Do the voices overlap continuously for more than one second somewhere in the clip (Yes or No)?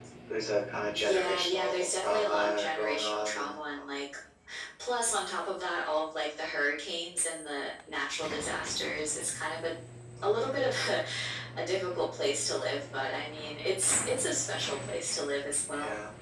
Yes